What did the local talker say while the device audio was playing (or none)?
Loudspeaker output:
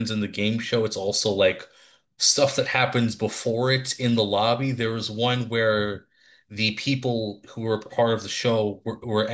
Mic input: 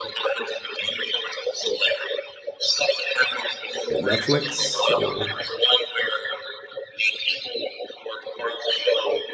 At Netflix or